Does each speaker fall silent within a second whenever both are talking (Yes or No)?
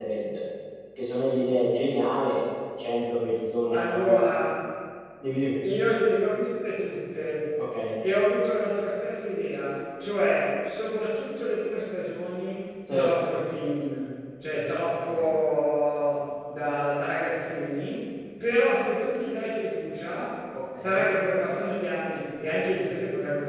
Yes